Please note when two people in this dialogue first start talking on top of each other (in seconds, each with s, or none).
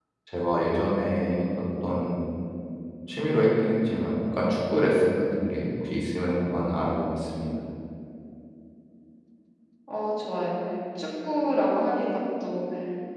none